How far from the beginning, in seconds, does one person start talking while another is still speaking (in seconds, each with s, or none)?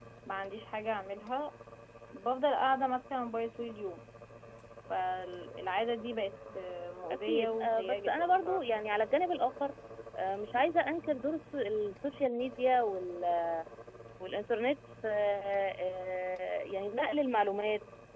7.3 s